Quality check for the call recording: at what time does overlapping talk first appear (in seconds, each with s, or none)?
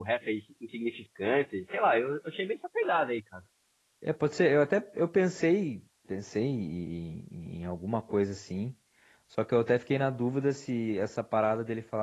none